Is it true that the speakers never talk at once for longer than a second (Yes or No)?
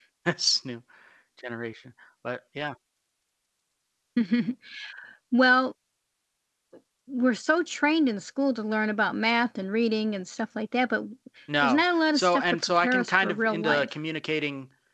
No